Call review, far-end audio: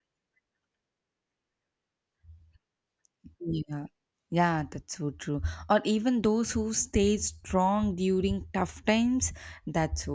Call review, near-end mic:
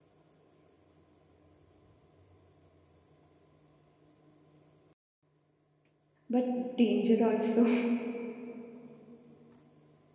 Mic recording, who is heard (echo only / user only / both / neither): user only